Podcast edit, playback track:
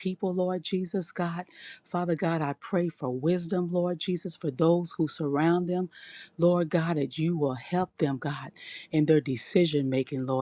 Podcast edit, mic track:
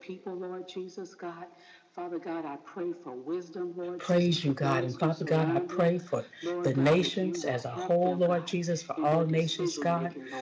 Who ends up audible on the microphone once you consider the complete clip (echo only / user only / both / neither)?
both